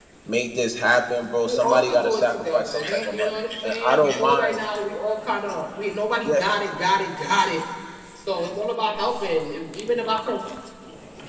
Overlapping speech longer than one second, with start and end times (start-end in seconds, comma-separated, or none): 1.4-4.6